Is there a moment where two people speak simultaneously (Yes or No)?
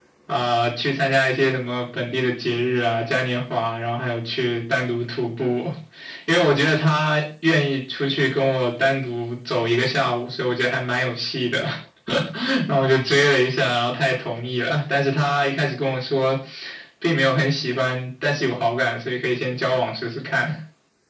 No